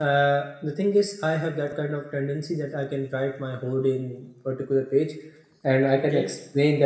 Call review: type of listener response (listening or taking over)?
listening